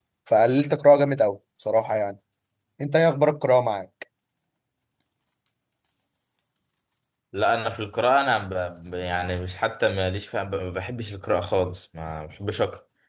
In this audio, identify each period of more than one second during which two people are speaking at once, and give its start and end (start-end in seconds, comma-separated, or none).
none